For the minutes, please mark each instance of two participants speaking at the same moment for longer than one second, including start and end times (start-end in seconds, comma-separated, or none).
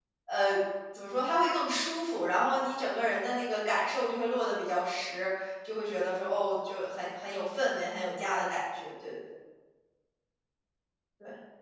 none